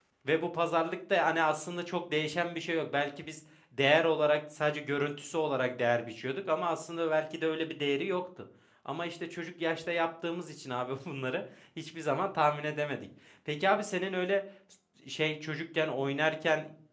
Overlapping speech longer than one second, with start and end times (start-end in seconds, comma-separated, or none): none